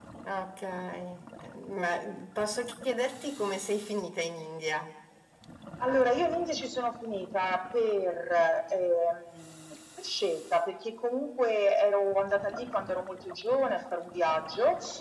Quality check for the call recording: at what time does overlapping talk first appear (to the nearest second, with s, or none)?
none